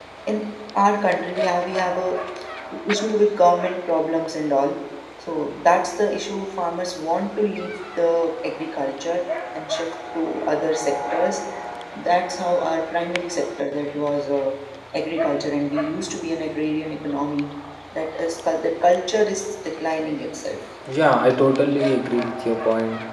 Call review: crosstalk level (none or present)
none